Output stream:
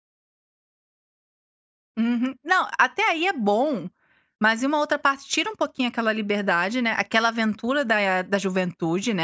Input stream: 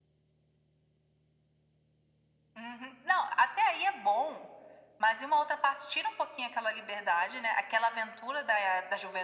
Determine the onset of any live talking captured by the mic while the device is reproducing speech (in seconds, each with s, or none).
none